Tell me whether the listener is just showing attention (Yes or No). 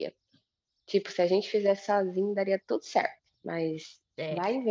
No